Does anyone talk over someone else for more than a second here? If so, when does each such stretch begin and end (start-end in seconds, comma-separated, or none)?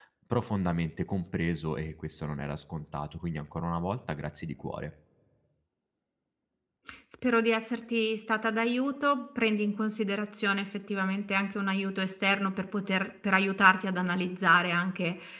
none